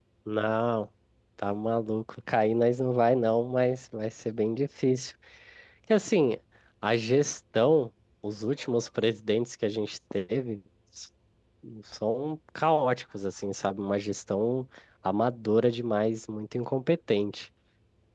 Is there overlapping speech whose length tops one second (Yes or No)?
No